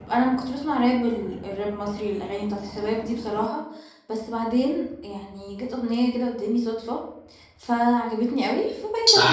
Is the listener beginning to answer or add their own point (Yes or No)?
Yes